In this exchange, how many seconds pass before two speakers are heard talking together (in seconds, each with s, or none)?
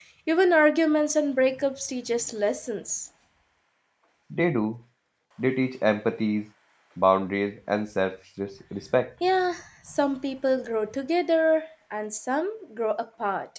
none